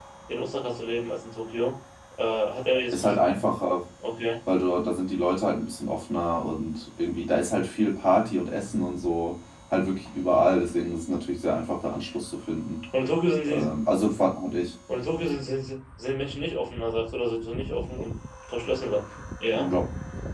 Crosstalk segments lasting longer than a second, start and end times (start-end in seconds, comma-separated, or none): none